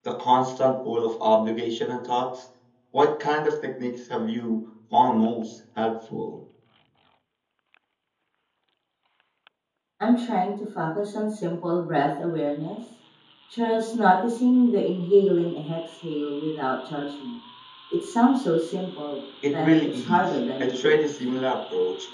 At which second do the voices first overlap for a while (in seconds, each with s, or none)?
19.4 s